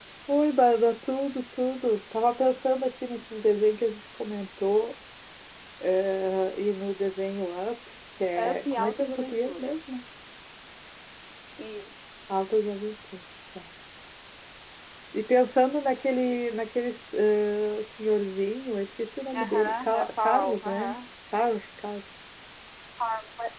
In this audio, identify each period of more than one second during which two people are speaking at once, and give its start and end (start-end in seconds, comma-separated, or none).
8.4-9.8, 19.3-20.9